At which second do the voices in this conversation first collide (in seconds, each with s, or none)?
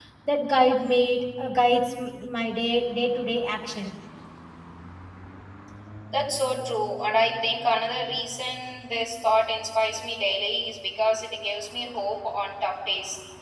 none